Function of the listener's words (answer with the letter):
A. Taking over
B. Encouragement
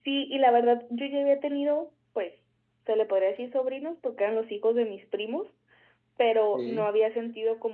B